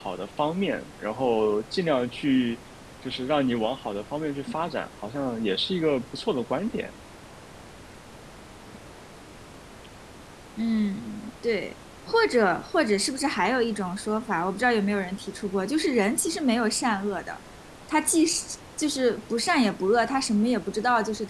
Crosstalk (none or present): none